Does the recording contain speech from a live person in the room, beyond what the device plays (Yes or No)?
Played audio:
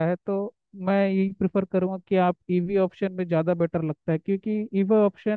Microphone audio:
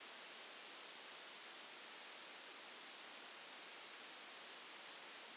No